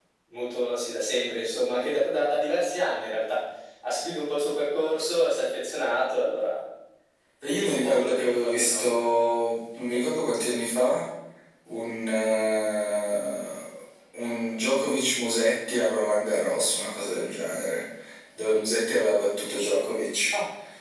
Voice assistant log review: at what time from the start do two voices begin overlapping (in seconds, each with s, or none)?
7.6 s